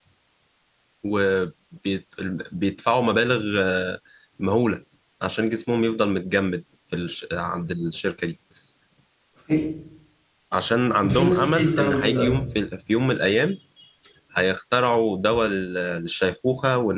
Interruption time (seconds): 11 s

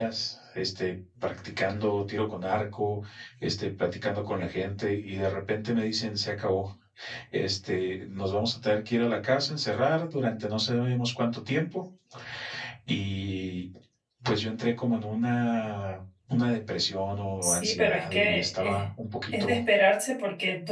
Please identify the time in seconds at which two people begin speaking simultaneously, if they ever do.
17 s

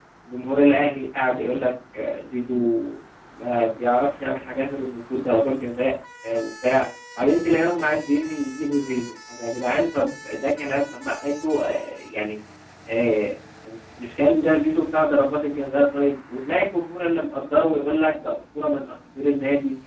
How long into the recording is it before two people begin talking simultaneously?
none

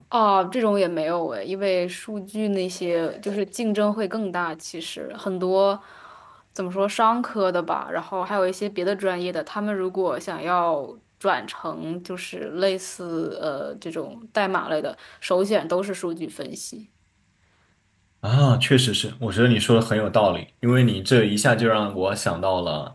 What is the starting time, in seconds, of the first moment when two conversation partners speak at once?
none

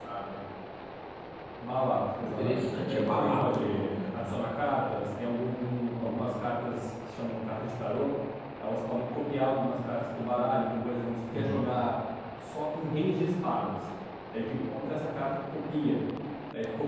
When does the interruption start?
2 s

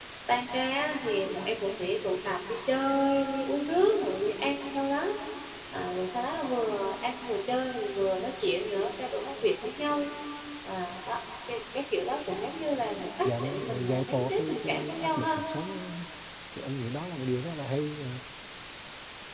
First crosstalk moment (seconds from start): 13 s

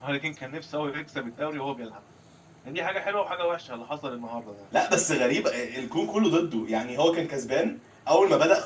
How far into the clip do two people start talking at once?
none

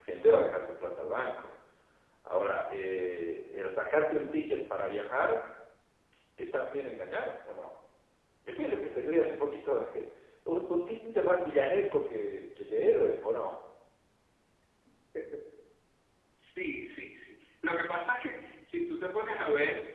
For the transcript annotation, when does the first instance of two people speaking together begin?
none

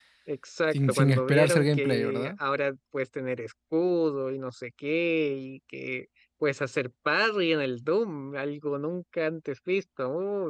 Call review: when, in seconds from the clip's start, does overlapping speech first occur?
1 s

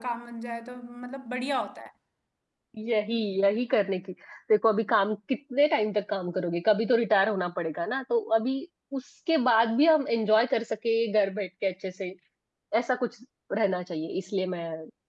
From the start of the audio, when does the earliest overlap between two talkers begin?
none

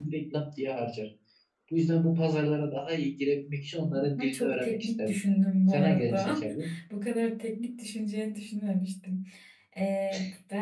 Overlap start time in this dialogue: 4 s

